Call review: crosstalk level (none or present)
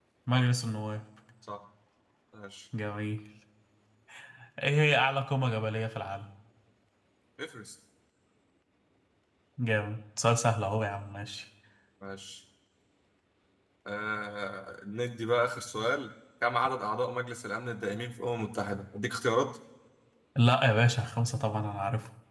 none